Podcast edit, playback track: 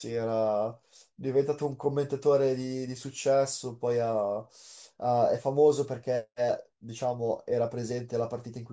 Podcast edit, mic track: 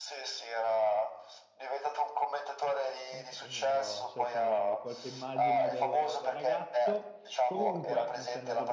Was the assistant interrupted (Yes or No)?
Yes